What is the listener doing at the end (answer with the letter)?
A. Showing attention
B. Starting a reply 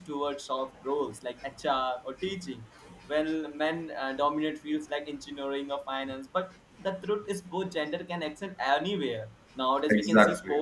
A